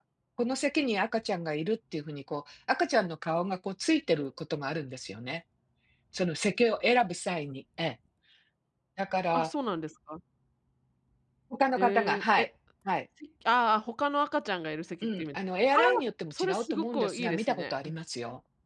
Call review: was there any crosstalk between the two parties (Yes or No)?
Yes